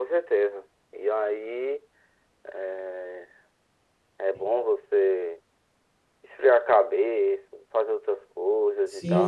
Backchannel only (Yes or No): No